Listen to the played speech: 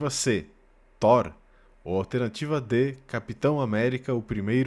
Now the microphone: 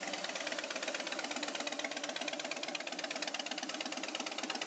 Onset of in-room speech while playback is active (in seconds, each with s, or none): none